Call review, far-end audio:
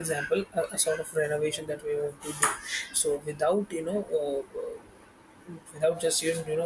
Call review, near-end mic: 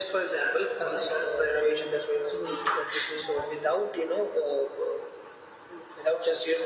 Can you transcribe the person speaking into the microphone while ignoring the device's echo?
we're uh, sharing responsibilities at the same time

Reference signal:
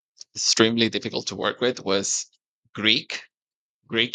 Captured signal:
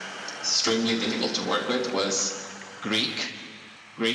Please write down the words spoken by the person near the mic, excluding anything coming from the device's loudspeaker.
none

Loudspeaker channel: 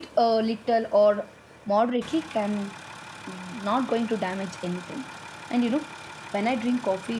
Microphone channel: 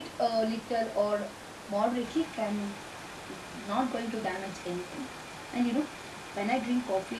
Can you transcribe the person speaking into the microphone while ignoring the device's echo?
none

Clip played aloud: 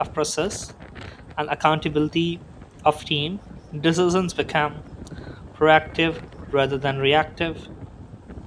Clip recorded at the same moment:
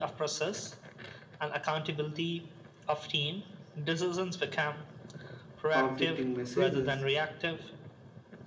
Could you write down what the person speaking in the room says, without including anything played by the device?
conflicting messages,

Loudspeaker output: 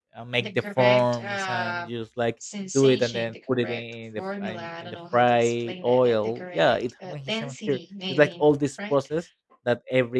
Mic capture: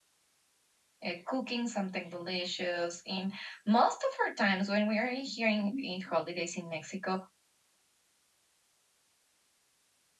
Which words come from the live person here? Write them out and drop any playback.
uh, cooking something delicious. And most of our times when we are here in, in holidays in Mexico,

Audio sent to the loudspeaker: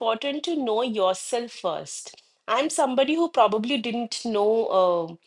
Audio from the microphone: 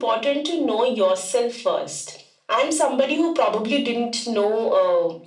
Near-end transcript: none

